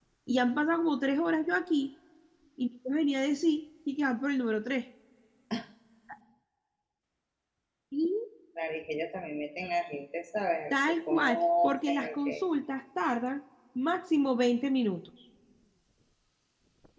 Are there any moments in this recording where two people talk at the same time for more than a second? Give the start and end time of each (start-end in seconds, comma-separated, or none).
10.7-12.4